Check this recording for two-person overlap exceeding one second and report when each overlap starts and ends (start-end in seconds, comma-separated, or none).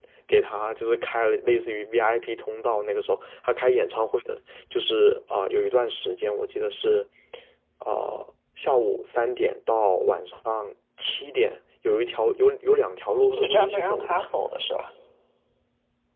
13.1-14.3